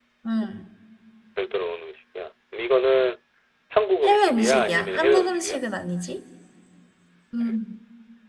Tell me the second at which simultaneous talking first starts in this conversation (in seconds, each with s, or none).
4.0 s